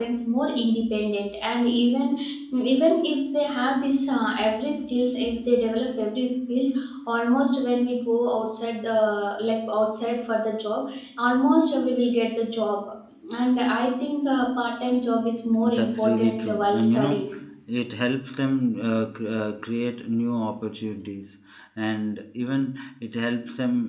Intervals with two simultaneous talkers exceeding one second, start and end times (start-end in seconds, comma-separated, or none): 15.8-17.2